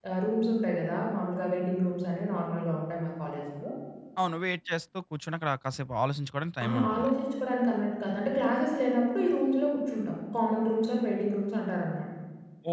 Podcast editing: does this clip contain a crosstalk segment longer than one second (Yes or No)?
No